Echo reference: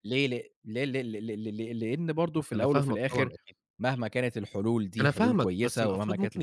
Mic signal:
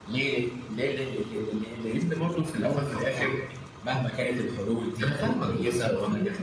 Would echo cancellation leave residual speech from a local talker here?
No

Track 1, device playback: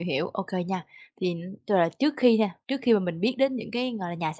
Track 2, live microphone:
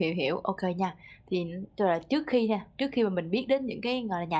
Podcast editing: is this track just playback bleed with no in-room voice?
Yes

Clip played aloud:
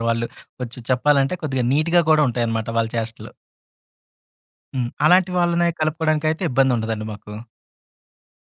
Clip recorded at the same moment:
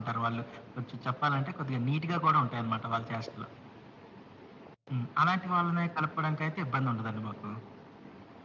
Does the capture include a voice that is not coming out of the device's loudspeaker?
No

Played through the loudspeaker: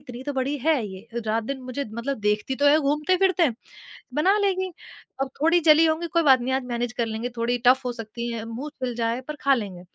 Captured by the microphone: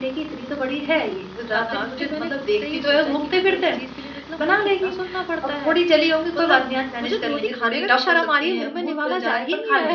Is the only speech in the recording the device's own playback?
No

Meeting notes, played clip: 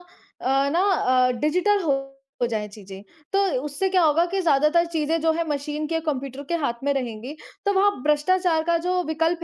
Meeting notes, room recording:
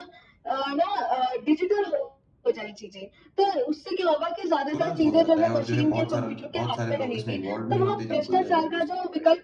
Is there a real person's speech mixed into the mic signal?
Yes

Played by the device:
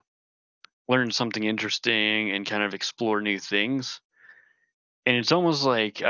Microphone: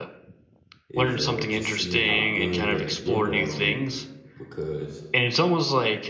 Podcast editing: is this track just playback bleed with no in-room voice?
No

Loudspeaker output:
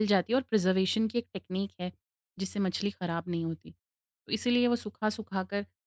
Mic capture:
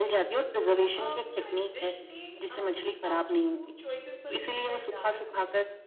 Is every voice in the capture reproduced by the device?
No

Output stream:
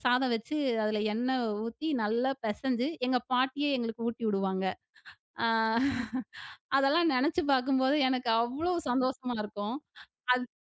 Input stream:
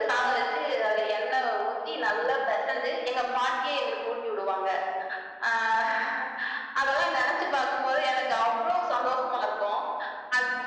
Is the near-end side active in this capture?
No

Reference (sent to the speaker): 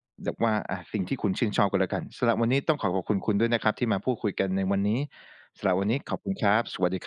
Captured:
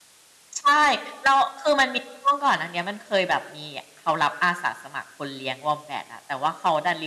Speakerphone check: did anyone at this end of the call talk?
Yes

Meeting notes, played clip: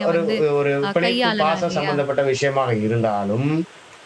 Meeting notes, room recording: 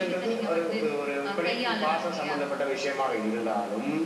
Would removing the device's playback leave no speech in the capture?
Yes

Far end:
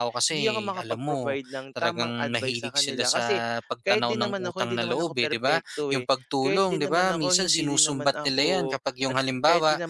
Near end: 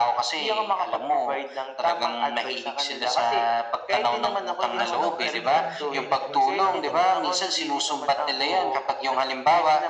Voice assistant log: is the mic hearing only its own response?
No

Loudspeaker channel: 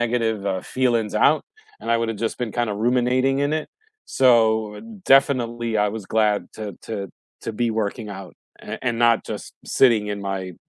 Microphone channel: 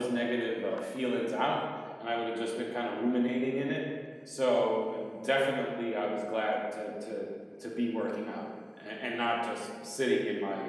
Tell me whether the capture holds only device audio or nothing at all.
Yes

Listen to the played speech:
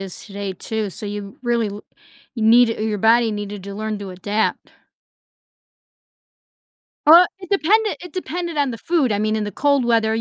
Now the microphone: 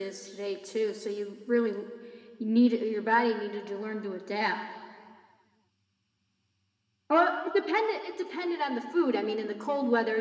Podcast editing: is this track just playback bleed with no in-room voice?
Yes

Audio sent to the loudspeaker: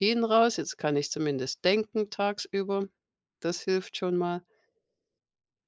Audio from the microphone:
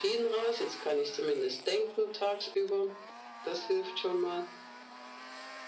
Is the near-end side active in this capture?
No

